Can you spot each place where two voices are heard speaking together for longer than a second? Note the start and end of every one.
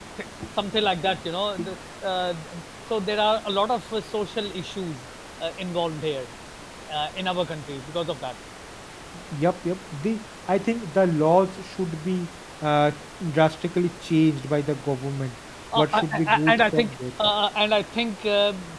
15.8-16.9

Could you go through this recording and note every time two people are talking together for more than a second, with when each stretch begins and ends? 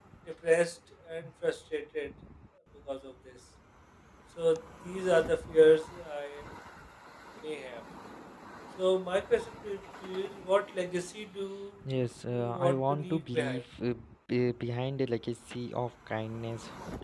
12.3-13.6

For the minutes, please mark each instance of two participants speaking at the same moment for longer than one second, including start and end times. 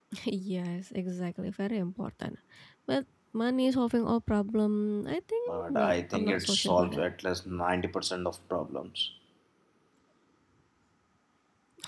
5.5-7.0

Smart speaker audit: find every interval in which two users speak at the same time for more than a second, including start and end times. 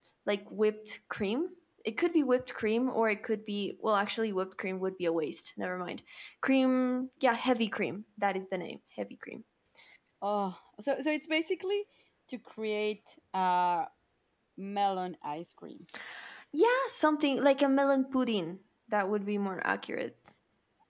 none

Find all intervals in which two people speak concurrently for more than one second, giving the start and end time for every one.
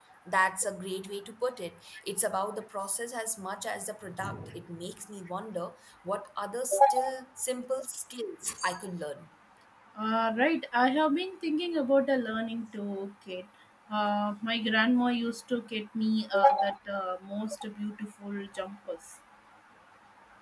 none

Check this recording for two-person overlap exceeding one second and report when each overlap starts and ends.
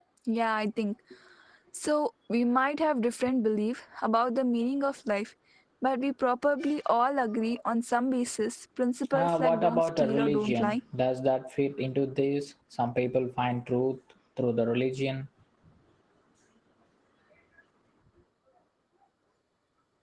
9.1-10.8

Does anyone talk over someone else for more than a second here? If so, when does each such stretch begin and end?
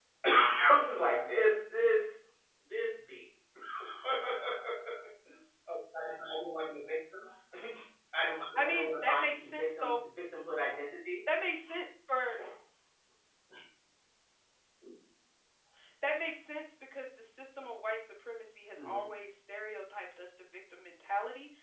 8.6-10.0

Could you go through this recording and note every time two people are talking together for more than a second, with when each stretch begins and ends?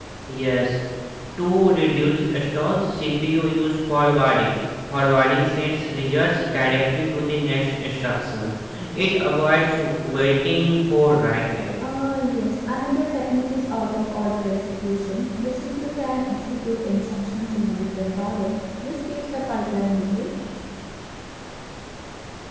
none

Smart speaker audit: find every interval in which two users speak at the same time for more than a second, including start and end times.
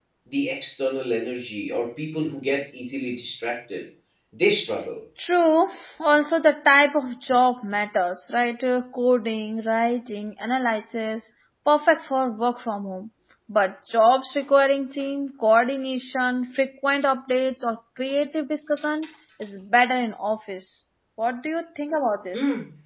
none

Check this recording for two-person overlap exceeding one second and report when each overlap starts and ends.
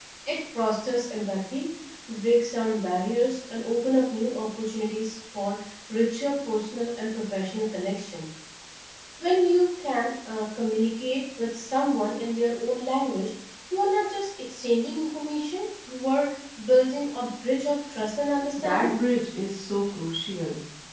none

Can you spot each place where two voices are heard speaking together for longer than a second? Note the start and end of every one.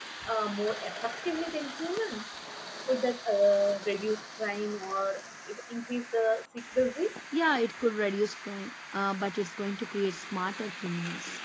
none

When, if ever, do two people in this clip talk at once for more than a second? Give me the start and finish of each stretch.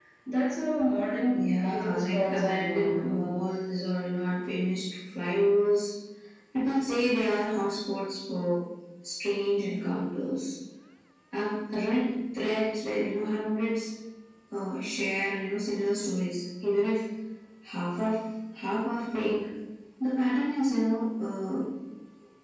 1.3-3.2

